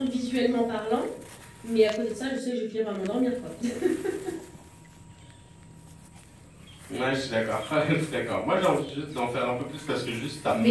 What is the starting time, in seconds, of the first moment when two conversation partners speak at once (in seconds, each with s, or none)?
none